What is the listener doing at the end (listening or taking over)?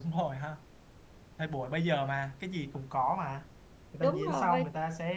listening